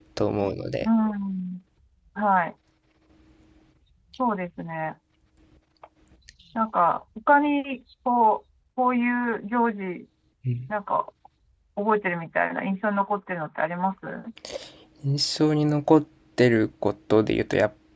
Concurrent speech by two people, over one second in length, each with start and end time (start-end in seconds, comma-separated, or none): none